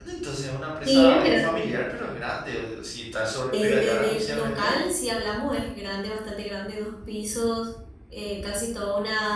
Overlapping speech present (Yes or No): Yes